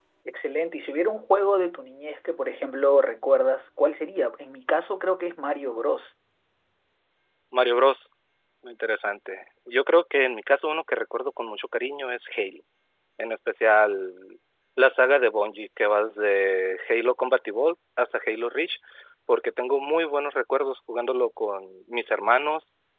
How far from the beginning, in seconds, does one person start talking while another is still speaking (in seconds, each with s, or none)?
none